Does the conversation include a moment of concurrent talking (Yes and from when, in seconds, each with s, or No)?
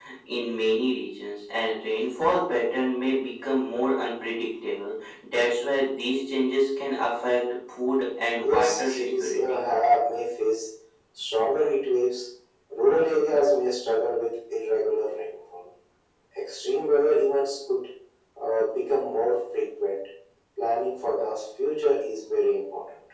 Yes, from 8.4 s